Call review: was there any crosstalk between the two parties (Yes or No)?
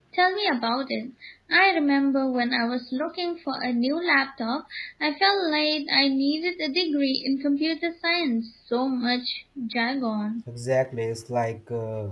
No